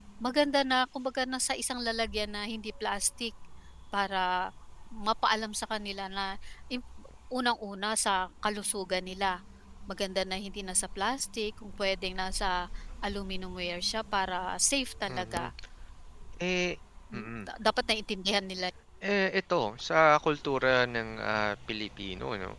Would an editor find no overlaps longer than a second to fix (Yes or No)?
Yes